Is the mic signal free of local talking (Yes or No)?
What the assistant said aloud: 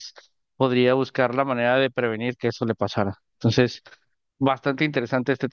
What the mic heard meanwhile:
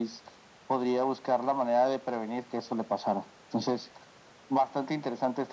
Yes